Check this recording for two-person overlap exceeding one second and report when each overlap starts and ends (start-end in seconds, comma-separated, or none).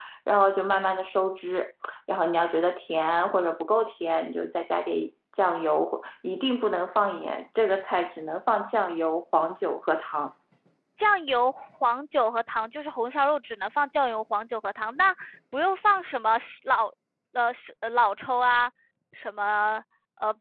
none